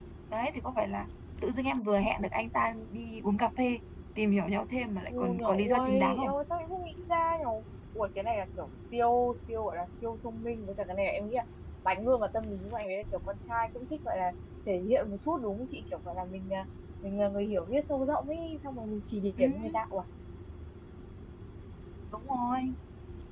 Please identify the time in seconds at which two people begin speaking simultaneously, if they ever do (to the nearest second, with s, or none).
5 s